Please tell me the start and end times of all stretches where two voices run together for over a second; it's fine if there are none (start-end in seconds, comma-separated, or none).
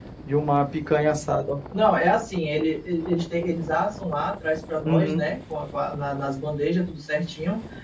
none